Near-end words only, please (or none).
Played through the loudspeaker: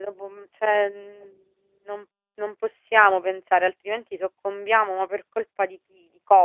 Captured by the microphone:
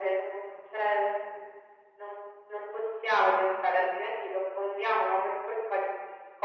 none